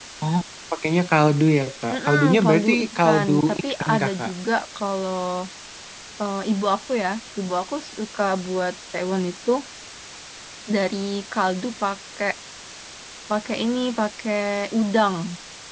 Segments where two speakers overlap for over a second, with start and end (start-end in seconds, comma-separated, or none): 1.9-4.3